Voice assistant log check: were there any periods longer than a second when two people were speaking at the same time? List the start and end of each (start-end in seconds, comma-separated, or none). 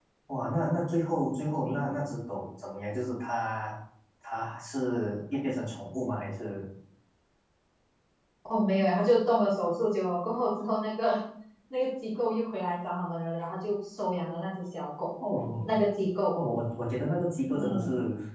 none